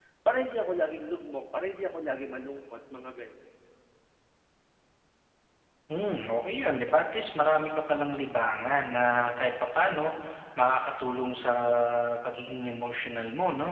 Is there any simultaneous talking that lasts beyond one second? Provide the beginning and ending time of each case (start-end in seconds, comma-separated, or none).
none